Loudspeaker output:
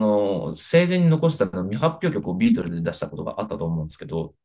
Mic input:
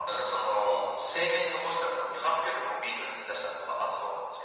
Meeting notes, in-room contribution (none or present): none